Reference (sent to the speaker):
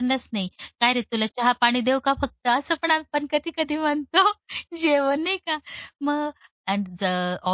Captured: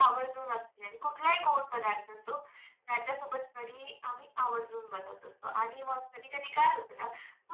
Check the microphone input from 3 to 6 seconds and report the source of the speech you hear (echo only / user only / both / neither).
user only